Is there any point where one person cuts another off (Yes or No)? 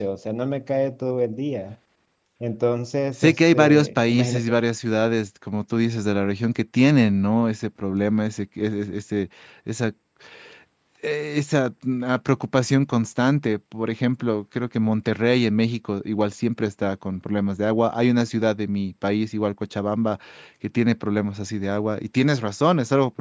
Yes